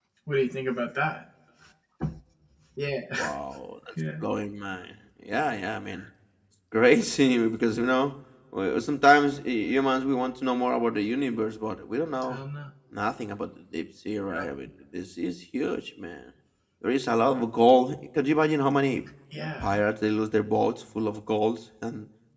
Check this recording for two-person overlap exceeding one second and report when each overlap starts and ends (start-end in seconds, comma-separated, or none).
none